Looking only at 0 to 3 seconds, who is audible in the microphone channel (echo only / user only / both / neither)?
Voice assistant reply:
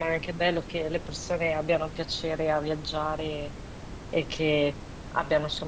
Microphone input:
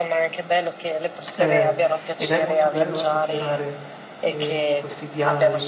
both